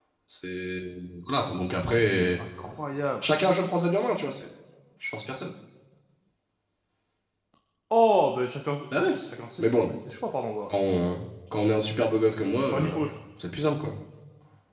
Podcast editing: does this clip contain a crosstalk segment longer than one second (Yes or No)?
No